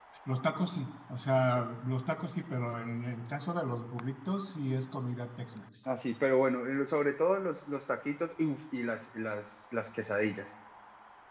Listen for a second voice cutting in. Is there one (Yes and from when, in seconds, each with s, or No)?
No